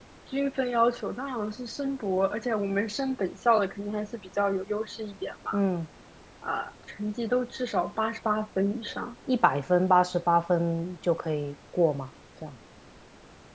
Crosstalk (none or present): none